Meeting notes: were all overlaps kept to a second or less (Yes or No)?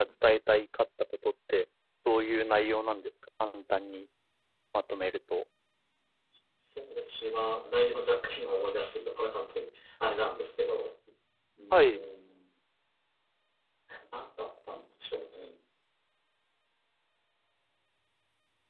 Yes